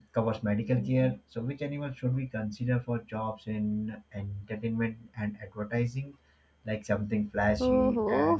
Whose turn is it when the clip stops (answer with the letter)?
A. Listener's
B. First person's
A